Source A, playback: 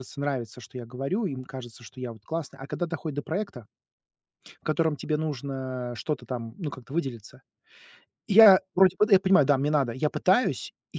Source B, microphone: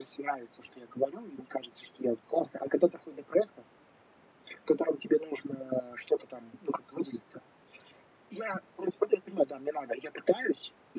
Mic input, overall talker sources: echo only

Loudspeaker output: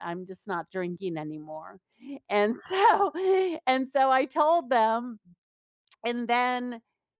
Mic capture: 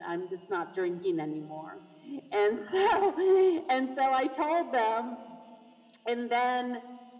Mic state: echo only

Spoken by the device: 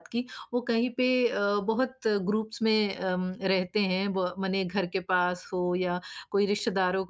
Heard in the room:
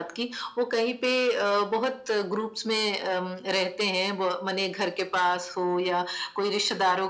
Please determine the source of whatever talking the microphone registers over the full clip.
echo only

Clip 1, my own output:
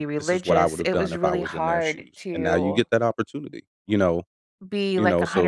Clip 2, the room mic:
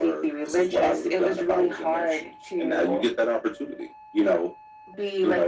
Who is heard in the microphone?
echo only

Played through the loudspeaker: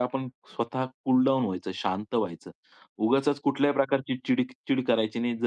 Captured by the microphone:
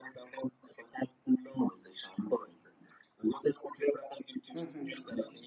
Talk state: both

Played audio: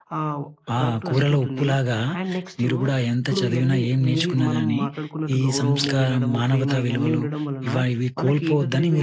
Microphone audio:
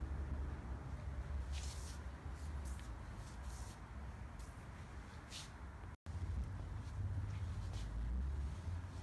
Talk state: neither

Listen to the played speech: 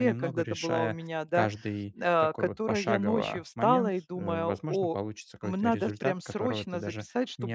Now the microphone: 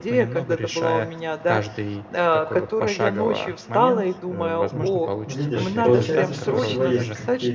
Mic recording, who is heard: both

